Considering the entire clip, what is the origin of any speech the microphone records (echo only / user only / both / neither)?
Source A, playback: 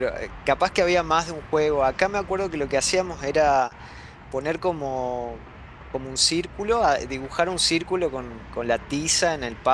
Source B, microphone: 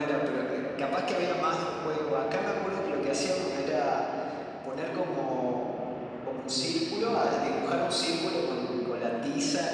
echo only